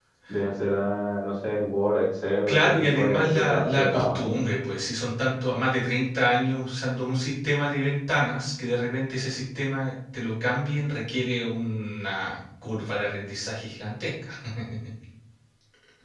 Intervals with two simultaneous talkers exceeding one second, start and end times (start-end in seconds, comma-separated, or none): 2.5-4.2